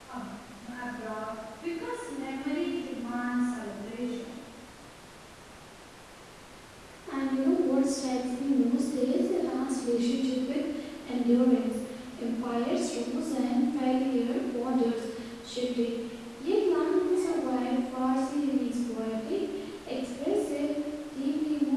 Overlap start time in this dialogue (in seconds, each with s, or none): none